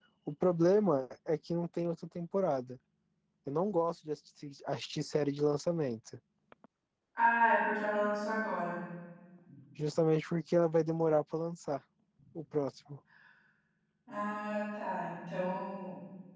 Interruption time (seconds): none

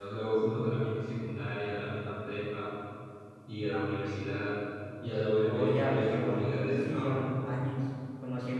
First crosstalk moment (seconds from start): 5.4 s

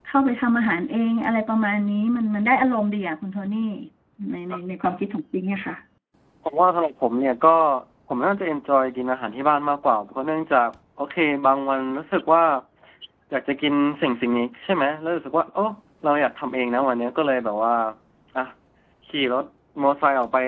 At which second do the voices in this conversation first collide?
none

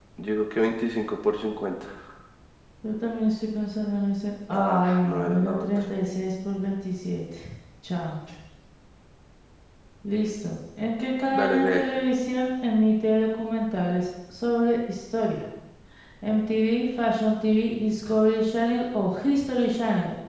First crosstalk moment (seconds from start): 4.5 s

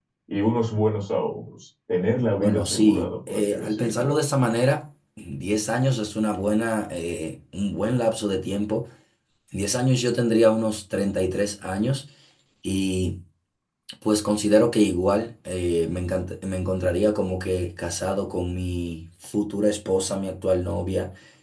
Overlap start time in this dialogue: 2.4 s

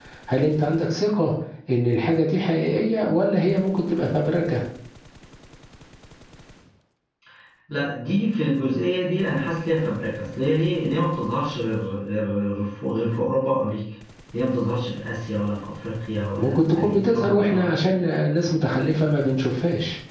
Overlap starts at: 16.4 s

